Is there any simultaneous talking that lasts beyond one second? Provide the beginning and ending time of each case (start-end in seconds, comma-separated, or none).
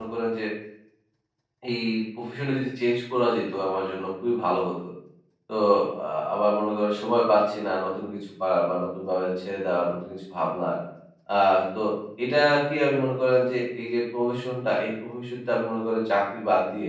none